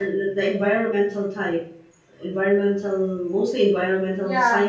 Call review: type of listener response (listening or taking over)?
taking over